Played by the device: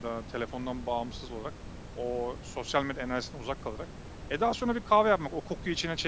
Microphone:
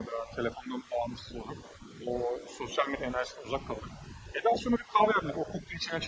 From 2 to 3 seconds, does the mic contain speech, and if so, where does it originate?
echo only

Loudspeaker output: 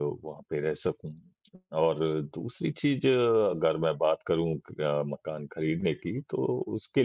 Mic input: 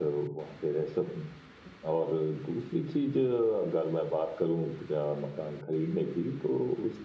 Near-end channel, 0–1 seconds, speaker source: echo only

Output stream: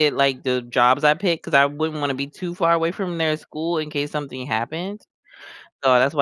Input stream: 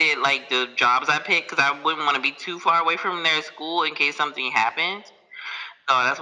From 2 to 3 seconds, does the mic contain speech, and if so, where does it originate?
echo only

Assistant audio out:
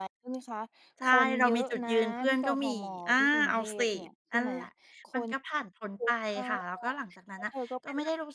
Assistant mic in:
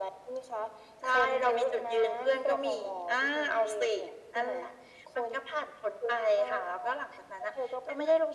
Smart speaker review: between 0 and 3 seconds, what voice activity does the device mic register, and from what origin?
echo only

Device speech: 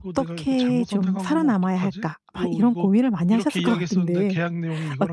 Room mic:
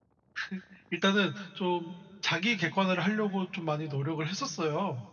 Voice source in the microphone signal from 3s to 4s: user only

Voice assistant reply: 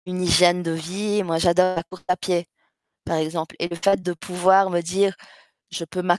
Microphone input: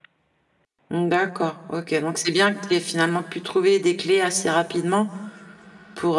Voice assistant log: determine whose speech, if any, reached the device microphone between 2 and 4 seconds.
user only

